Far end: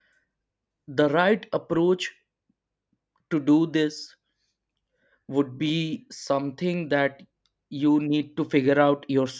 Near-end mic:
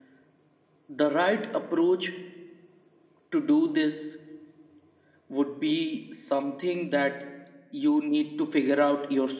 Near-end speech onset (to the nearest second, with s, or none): none